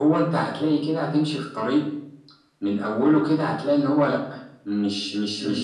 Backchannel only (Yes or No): Yes